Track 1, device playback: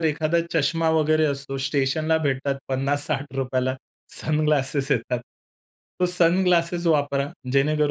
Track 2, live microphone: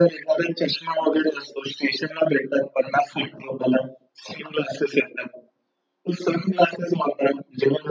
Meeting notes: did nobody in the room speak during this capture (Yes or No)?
Yes